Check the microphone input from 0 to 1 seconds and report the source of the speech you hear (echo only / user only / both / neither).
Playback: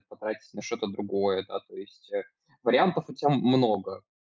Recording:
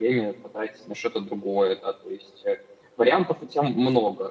echo only